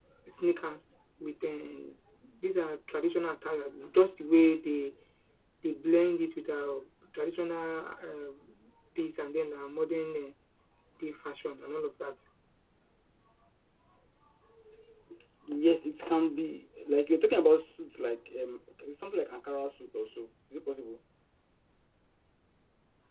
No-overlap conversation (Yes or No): Yes